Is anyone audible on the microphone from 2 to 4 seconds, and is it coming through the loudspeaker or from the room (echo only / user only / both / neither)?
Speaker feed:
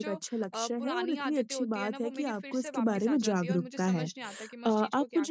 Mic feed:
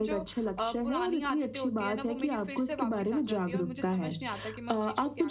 echo only